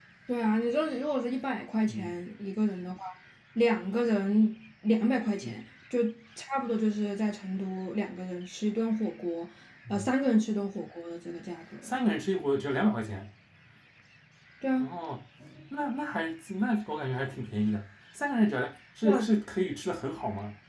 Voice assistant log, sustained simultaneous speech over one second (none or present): none